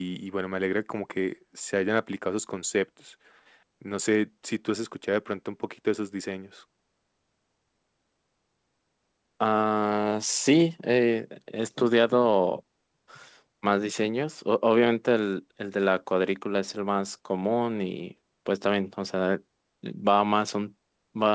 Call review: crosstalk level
none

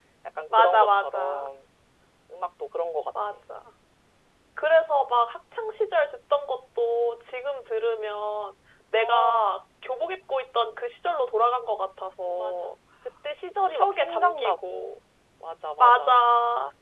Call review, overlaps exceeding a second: present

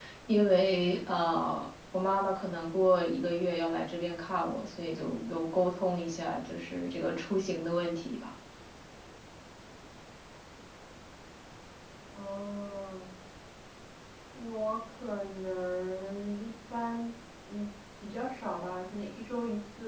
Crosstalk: none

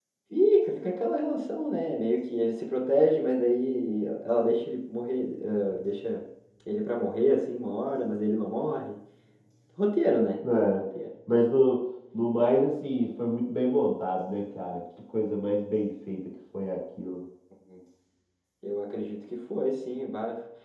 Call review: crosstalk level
none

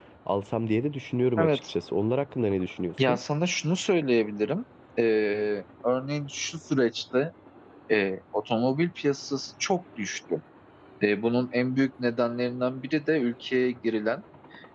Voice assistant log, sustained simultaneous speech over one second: none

